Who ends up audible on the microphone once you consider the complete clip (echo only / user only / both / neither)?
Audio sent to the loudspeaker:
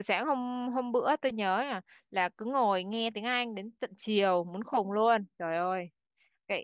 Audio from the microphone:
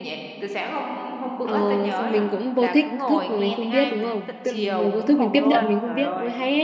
both